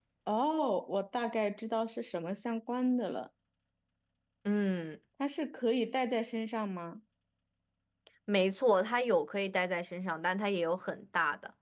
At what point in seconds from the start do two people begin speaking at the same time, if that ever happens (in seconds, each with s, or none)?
none